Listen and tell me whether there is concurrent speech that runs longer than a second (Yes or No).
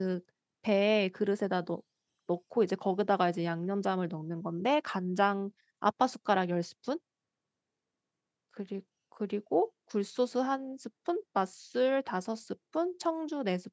No